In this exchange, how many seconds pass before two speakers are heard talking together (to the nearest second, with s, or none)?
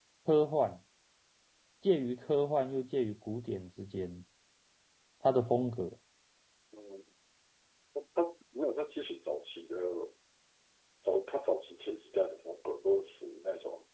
none